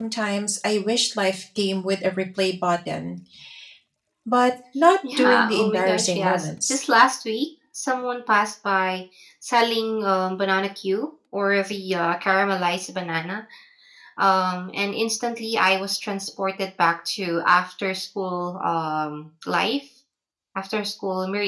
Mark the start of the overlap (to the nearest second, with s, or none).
5 s